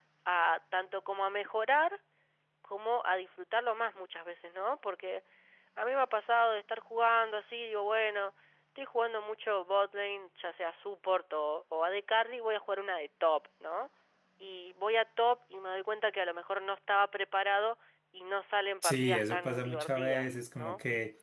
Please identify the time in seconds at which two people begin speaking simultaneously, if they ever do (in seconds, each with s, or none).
18.8 s